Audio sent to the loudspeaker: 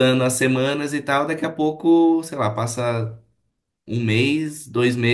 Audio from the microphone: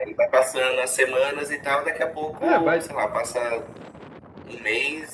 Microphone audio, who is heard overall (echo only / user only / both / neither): both